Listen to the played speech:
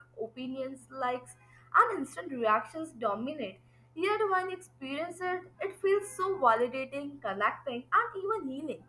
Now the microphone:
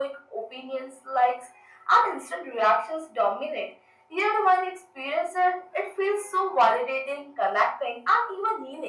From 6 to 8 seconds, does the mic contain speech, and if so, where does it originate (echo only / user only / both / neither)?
echo only